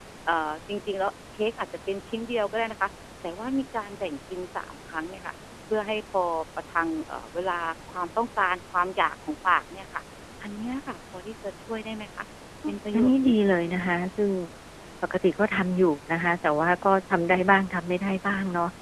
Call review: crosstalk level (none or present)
present